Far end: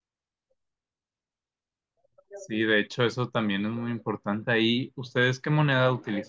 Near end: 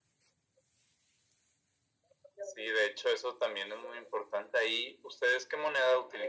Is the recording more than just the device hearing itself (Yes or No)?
No